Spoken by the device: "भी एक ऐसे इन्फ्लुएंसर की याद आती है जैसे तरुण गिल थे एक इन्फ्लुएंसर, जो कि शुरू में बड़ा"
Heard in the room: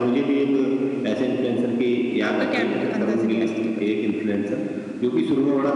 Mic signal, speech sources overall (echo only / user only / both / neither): both